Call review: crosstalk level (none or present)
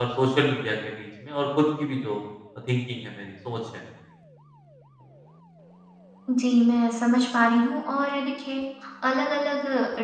none